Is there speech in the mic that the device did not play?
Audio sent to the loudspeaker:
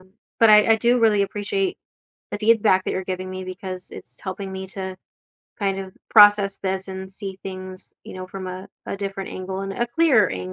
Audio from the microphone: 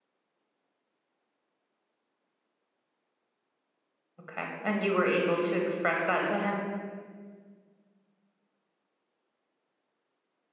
Yes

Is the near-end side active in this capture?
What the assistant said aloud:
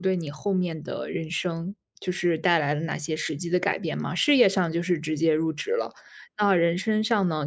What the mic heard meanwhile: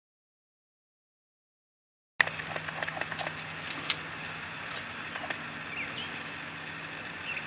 No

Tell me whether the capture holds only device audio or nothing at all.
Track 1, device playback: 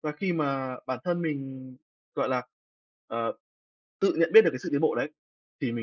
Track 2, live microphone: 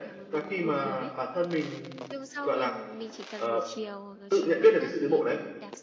No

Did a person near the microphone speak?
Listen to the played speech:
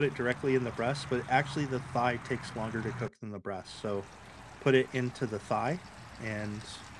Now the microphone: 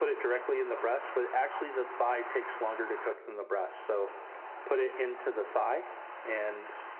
No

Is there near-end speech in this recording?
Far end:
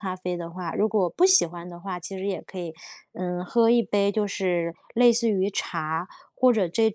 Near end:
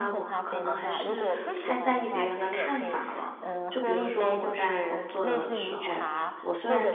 Yes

